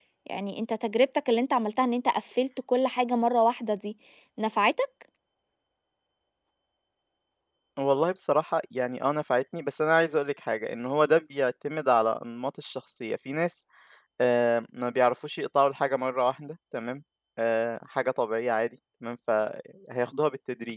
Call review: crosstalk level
none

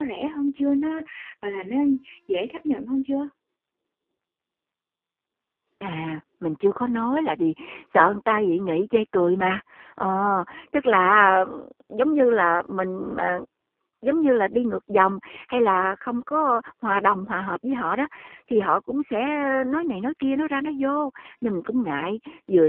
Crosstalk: none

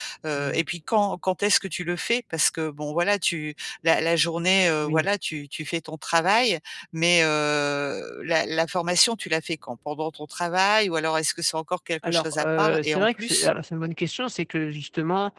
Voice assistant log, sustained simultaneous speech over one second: present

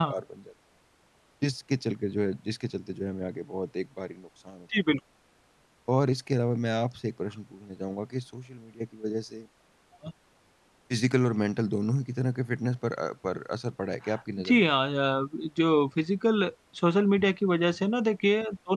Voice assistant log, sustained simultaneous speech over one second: none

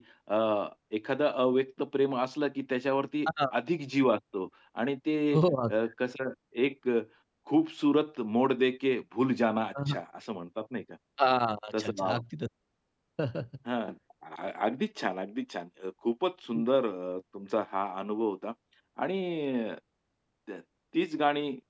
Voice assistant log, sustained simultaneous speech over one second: none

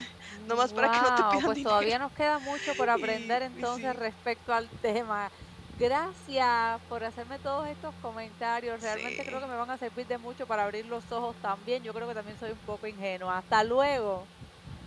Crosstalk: present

